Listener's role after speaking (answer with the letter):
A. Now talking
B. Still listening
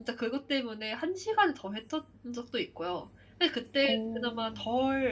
B